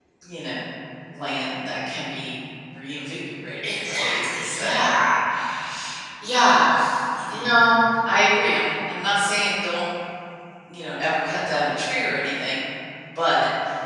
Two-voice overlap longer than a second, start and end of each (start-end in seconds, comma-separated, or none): 3.6-5.0